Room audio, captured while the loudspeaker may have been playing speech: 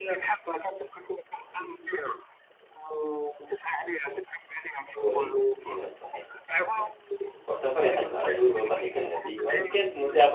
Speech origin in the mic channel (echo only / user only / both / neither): both